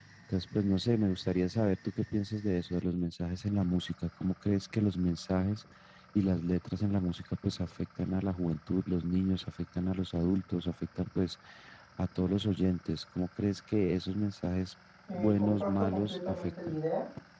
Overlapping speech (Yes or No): Yes